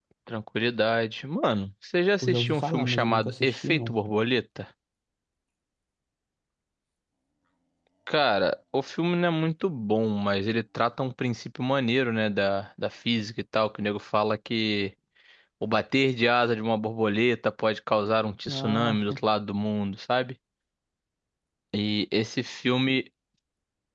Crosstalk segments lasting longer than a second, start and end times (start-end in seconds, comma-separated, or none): 2.2-4.0